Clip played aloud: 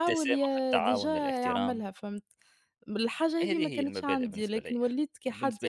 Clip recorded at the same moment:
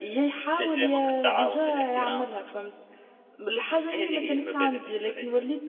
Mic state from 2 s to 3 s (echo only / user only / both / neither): echo only